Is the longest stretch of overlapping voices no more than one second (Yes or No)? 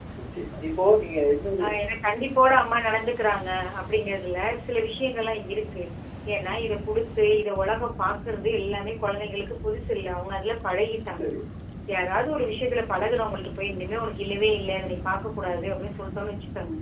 Yes